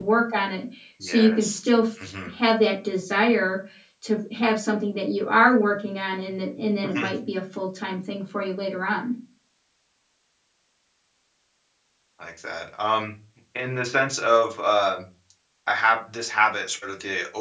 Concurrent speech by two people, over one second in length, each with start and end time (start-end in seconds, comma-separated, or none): none